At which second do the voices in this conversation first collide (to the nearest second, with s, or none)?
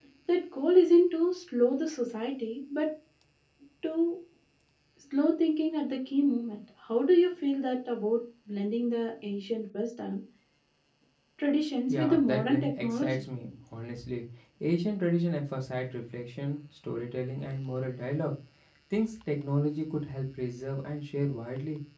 12 s